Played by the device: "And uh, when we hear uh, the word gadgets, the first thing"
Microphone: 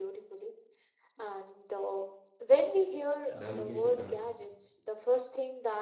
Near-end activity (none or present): present